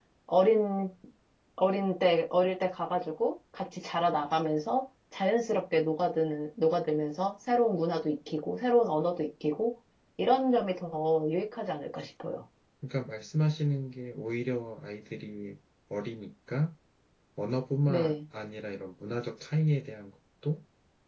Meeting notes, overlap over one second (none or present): none